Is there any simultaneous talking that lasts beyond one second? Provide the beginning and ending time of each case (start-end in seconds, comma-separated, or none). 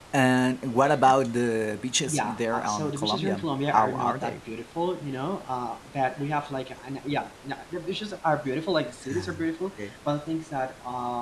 2.1-4.4